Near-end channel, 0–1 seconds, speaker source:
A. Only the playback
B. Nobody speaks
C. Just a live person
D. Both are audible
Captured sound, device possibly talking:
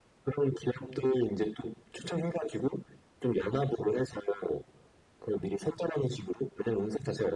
A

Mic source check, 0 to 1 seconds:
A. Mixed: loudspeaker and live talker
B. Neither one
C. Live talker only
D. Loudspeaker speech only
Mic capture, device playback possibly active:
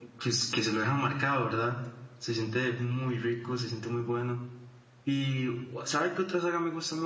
C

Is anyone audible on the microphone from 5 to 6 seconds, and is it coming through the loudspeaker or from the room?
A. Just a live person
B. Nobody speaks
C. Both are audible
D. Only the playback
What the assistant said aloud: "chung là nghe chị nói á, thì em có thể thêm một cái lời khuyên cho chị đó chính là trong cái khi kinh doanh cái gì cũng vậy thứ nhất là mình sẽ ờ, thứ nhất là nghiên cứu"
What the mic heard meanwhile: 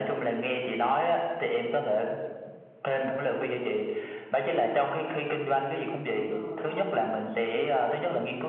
D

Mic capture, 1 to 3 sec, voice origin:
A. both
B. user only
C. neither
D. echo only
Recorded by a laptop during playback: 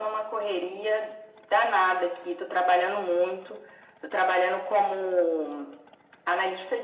D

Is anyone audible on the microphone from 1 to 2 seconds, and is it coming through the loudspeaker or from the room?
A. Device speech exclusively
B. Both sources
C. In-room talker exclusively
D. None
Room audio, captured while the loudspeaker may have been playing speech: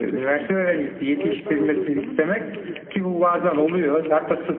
B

